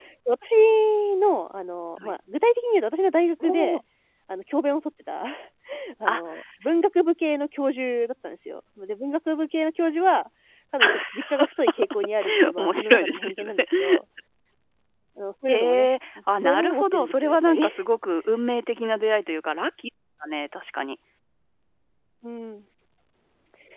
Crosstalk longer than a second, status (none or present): present